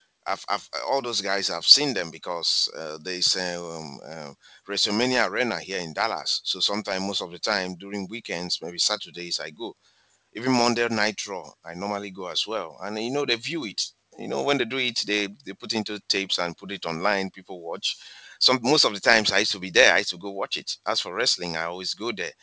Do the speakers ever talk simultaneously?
No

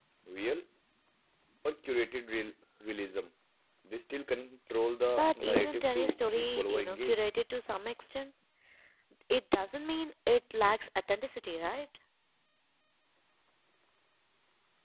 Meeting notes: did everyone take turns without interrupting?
No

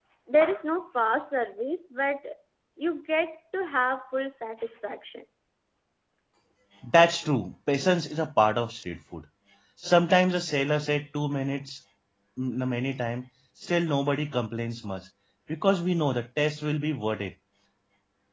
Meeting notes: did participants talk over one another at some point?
No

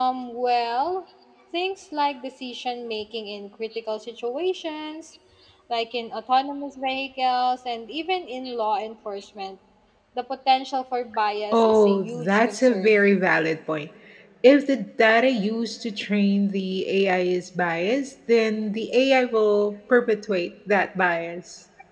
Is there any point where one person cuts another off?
Yes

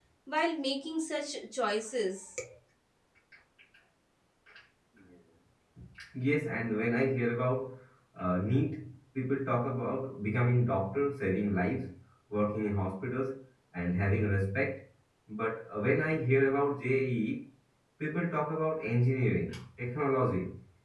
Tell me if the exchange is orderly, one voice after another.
Yes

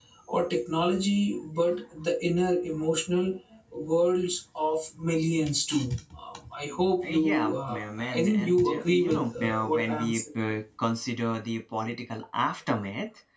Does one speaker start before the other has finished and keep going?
Yes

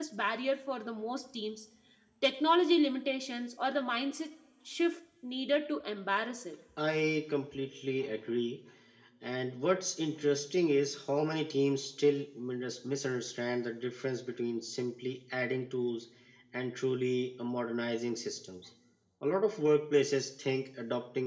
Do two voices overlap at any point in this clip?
No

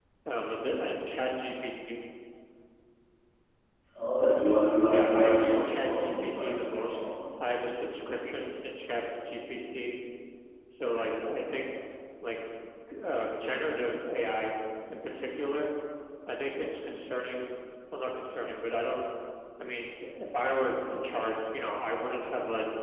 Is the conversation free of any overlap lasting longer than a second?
No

